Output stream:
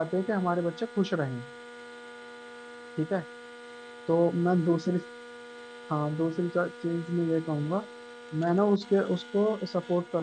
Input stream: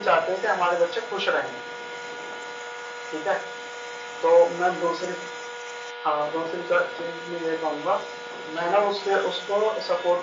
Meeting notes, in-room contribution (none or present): none